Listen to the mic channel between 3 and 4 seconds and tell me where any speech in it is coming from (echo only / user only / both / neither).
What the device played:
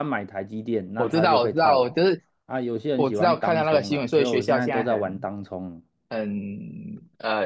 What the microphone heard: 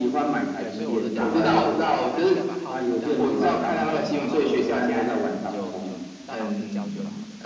both